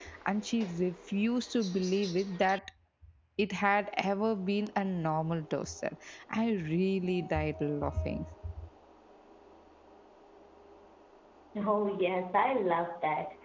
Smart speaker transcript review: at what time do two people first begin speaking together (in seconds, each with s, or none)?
none